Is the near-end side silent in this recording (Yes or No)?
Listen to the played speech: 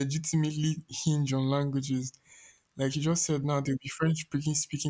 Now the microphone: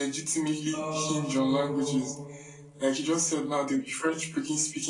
No